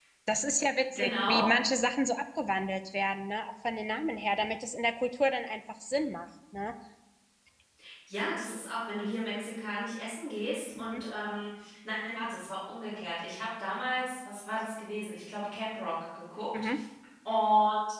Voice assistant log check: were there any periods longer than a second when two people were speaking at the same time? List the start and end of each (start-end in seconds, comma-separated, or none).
none